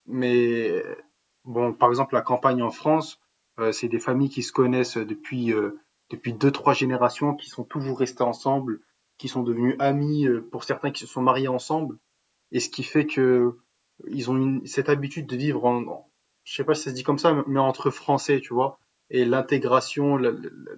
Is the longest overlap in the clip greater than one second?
No

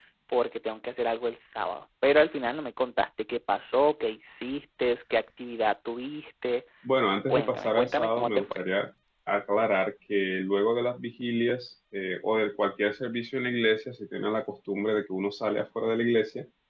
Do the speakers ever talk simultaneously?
Yes, from 7.3 s

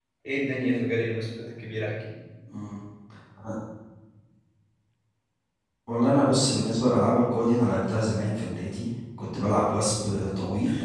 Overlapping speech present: No

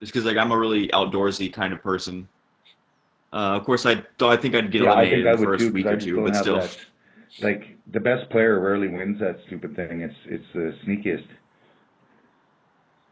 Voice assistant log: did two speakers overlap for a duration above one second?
Yes, from 4.8 s

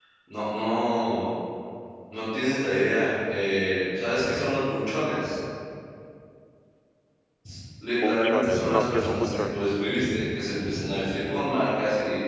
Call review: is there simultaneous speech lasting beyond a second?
Yes, from 8.0 s

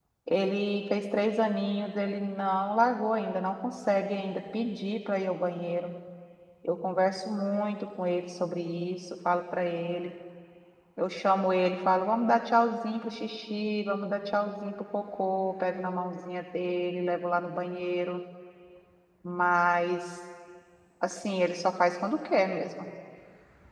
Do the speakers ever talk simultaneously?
No

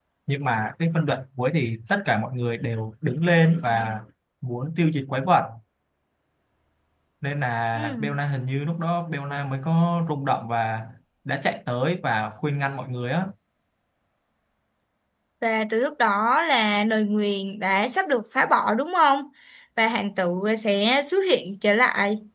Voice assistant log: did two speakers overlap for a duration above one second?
No

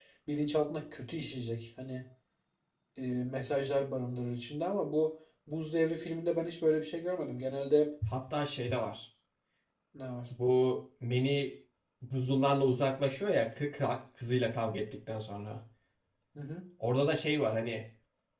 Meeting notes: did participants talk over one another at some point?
No

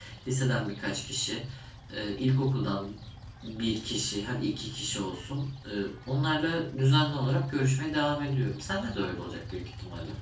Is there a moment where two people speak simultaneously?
No

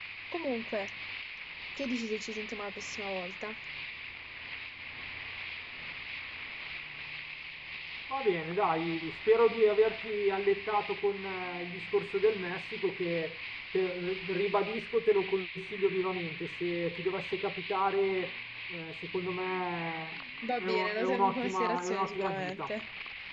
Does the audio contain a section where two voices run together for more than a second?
Yes, from 20.4 s

